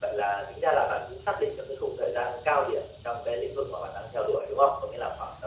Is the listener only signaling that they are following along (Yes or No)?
Yes